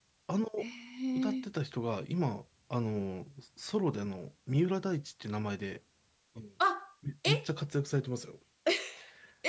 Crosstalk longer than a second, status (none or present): none